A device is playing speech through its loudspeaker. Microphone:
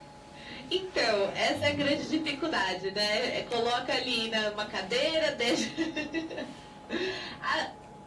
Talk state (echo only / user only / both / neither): both